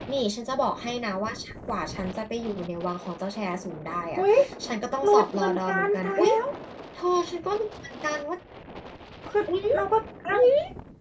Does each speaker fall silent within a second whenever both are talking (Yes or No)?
No